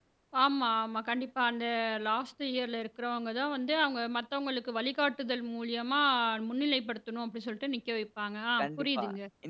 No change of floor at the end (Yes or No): No